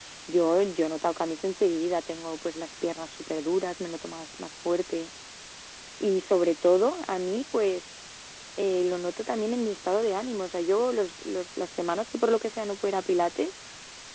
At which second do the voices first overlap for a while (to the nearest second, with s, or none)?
none